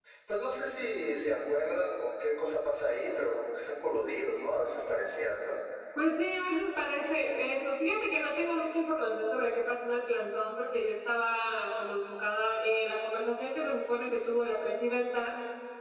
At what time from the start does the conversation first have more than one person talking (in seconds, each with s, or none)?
none